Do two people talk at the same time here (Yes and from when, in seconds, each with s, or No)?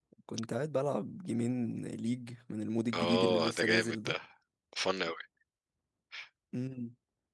Yes, from 2.9 s